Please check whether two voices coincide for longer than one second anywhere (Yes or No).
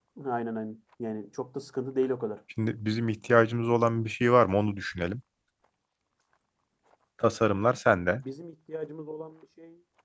No